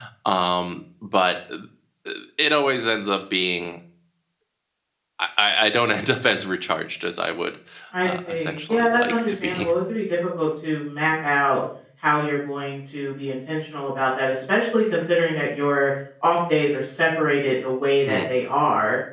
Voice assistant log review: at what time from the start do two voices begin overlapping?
8 s

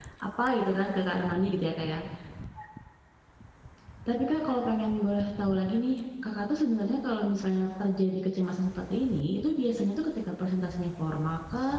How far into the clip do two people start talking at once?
none

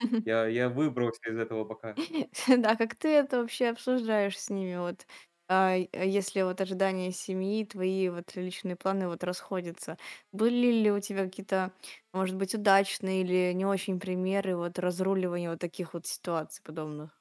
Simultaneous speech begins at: none

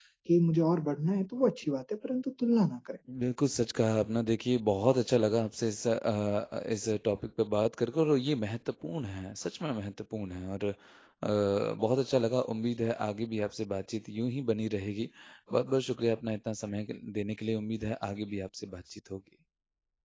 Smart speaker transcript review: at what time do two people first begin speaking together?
none

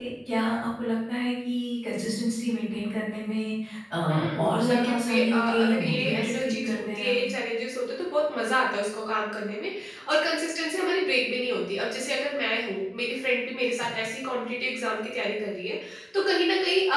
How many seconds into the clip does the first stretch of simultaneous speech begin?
4 s

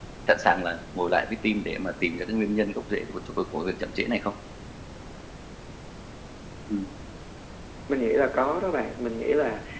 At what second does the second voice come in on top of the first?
none

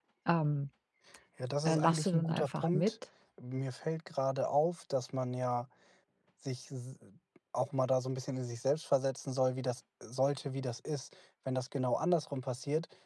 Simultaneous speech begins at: 2 s

